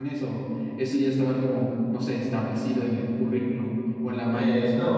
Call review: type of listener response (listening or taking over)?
taking over